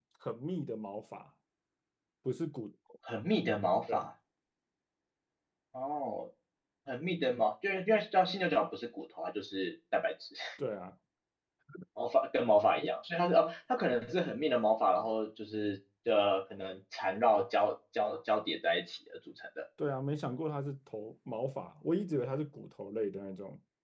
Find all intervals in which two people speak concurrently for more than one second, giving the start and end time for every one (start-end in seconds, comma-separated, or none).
none